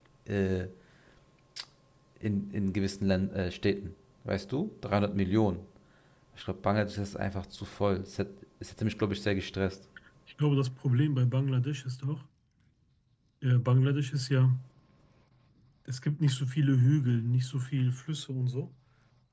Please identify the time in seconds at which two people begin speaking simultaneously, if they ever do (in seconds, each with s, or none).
none